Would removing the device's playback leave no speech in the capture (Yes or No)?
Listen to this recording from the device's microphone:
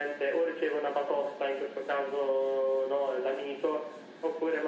Yes